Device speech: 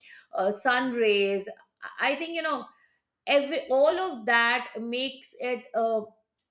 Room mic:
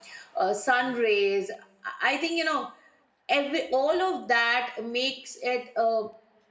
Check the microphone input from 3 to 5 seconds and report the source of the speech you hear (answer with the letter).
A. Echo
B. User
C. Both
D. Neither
A